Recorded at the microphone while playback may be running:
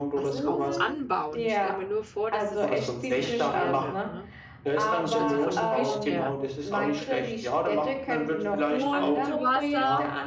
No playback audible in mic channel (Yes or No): No